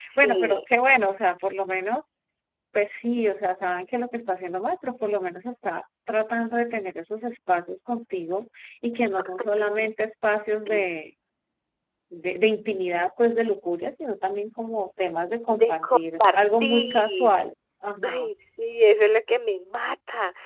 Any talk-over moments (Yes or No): Yes